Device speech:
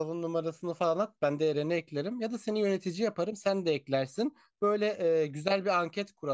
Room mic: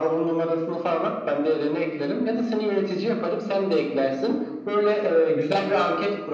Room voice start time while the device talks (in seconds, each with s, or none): none